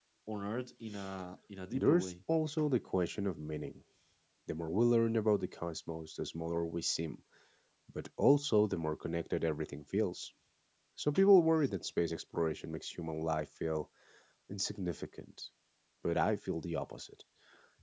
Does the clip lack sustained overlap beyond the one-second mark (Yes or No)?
Yes